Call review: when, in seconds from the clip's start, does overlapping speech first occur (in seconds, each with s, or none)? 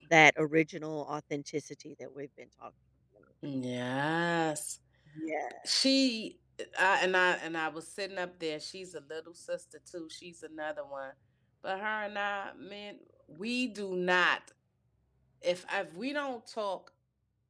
none